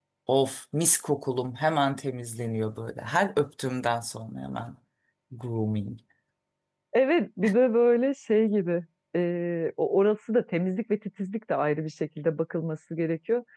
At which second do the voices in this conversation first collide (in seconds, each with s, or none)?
none